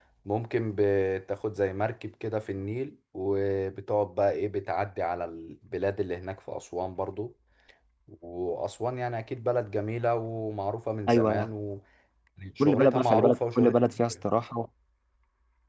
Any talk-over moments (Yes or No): Yes